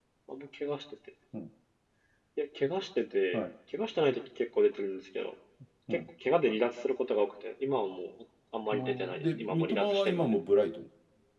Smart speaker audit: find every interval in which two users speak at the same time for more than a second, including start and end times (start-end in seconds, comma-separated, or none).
8.7-10.3